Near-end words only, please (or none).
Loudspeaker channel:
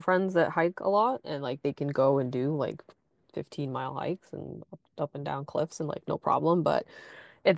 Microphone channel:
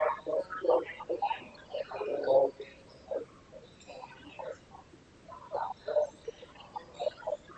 none